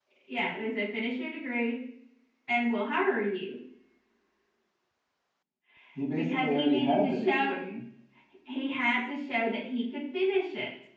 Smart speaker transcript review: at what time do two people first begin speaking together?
6.2 s

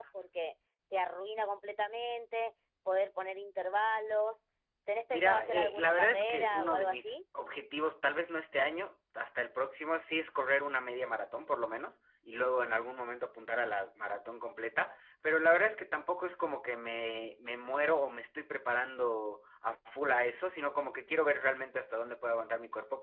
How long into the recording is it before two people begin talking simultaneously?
5.1 s

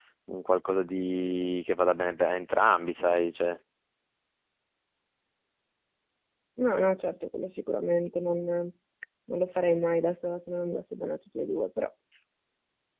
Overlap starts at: none

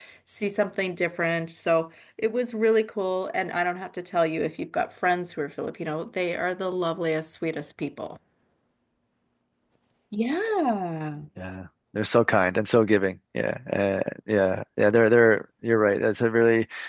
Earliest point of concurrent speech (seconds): none

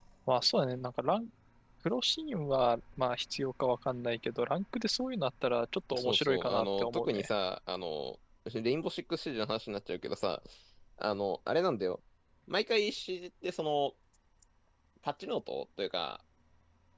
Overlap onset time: 5.9 s

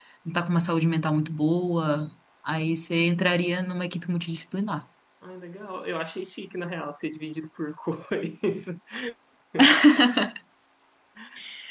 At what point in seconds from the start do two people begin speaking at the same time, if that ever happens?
none

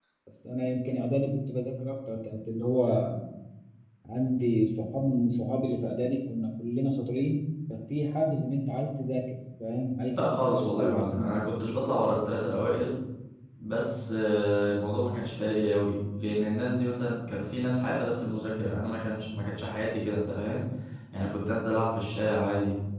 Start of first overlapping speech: 10.1 s

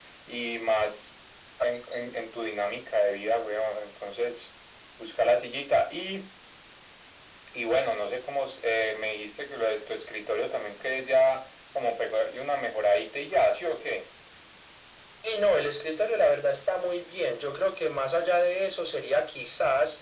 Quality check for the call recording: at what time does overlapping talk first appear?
none

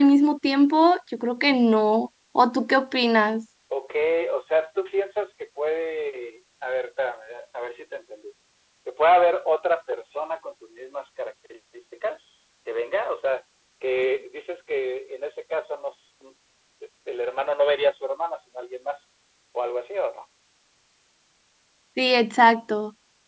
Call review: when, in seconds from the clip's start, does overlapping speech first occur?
none

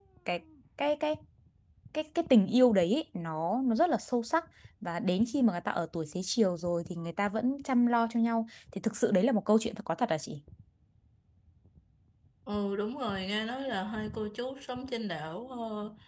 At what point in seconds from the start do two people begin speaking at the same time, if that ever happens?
none

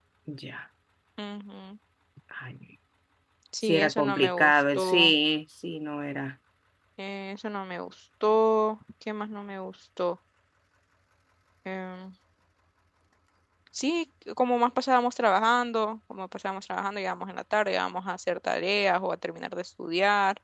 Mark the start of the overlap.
3.6 s

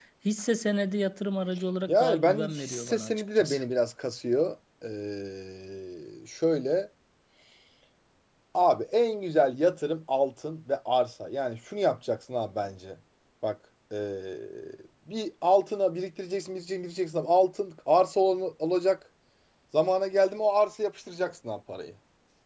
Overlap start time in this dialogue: 1.9 s

